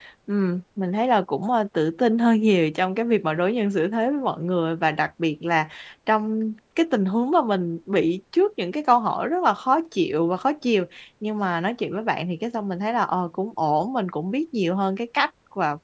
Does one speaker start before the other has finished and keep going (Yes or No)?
No